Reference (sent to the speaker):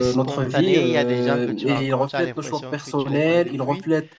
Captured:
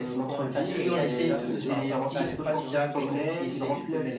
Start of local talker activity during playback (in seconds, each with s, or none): 0.6 s